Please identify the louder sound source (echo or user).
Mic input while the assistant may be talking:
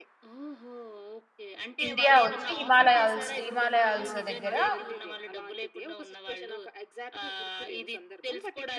user